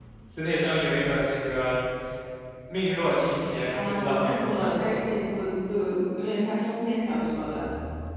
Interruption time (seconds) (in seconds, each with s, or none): 3.6 s